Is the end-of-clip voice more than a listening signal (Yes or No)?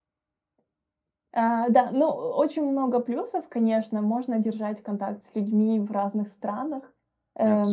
No